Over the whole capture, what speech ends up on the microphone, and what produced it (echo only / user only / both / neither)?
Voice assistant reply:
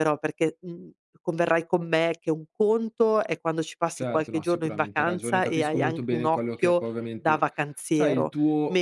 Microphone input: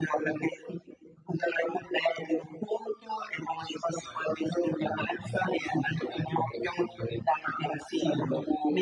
echo only